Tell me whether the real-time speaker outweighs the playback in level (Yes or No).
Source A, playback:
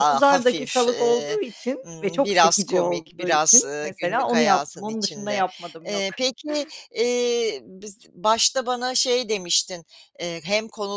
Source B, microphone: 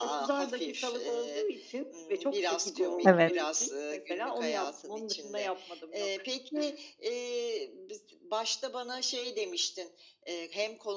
Yes